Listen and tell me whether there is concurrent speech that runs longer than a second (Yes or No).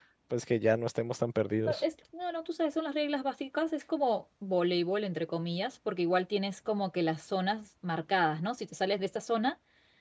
No